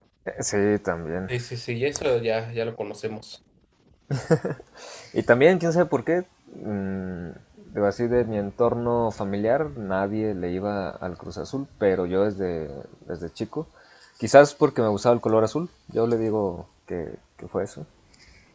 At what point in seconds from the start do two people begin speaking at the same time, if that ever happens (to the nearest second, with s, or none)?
none